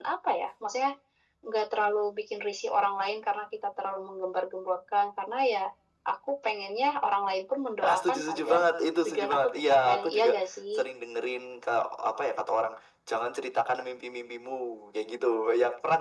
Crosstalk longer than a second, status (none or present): present